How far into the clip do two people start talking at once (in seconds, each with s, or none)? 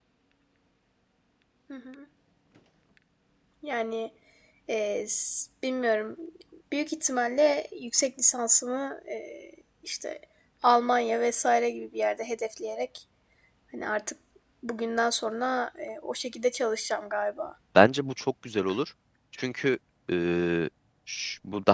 none